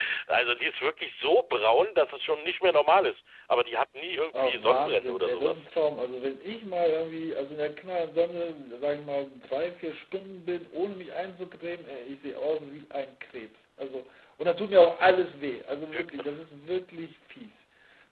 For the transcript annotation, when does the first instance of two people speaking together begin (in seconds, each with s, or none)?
4.3 s